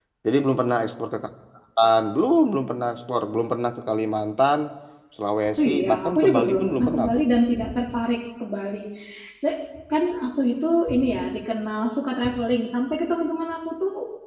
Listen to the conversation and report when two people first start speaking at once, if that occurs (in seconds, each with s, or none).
5.6 s